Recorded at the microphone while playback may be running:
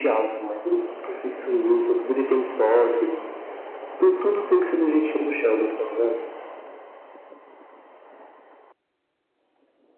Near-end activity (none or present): none